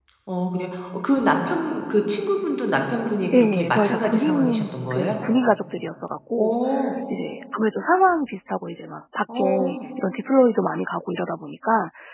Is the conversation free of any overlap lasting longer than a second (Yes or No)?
No